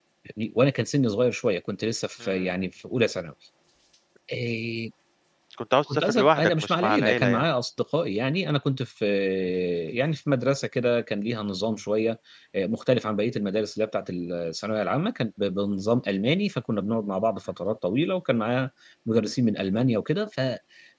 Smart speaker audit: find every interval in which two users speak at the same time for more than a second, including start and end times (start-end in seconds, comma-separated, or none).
5.9-7.5